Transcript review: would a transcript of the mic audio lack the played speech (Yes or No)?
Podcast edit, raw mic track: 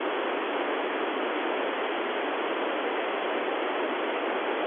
Yes